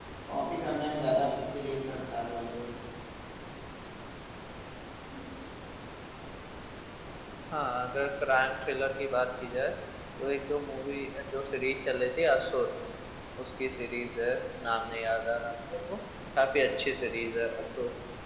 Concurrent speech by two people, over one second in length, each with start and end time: none

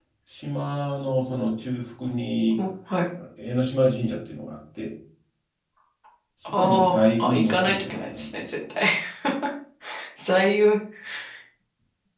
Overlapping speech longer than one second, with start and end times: 6.5-8.5

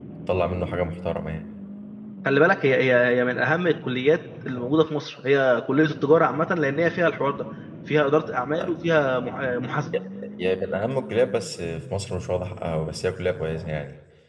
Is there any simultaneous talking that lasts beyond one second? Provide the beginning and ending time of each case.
none

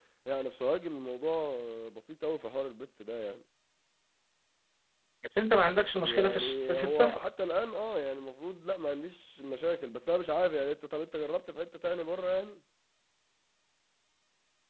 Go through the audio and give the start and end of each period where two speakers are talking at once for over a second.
6.0-7.2

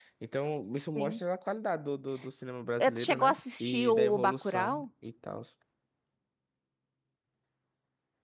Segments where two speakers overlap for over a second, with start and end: 2.8-4.8

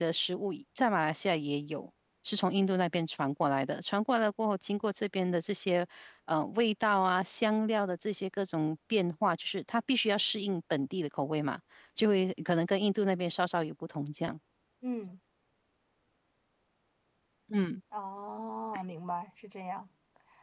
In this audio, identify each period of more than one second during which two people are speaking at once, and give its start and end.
none

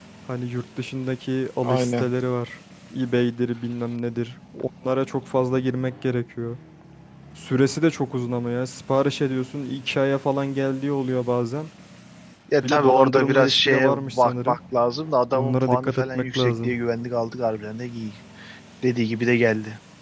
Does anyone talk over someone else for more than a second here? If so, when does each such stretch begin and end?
12.6-14.6, 15.3-16.8

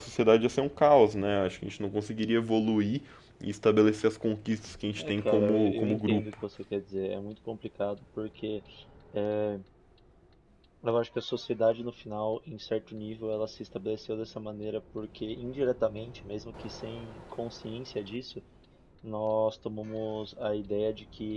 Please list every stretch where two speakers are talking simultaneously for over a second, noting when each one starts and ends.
5.0-6.3

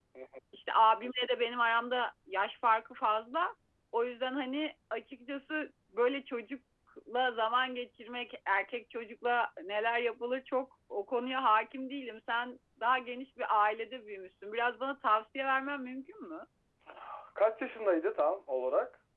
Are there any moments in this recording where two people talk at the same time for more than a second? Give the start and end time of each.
none

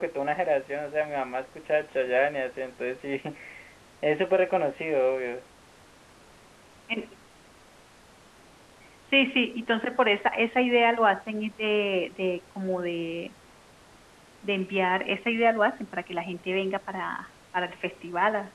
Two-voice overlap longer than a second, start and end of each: none

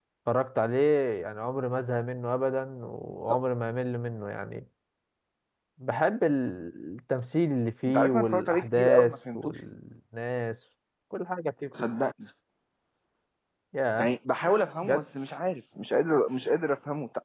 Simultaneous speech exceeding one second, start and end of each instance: 7.9-9.6

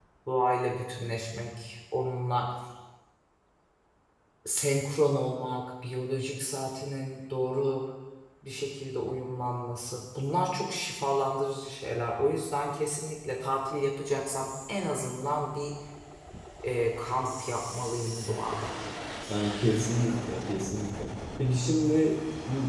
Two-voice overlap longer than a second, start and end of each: none

